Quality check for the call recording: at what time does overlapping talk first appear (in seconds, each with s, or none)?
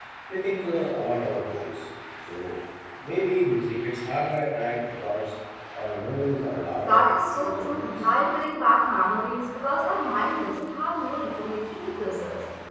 6.8 s